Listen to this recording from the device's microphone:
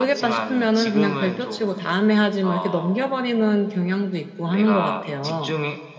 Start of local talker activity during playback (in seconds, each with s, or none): none